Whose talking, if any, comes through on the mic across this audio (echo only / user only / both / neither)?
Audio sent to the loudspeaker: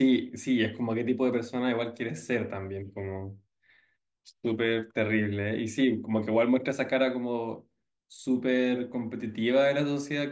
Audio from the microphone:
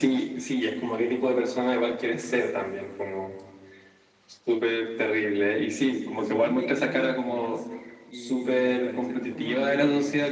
both